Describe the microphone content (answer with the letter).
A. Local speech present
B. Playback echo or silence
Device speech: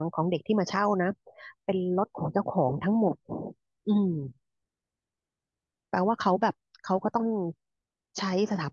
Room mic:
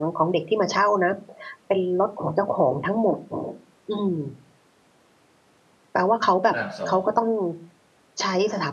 A